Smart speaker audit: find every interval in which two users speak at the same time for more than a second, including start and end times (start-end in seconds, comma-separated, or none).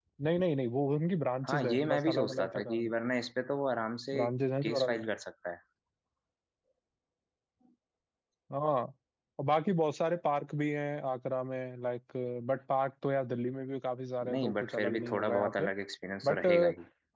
1.4-2.9, 14.3-15.7